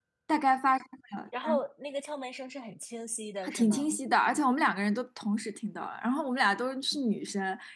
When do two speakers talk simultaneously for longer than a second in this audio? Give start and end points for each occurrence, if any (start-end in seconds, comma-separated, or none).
none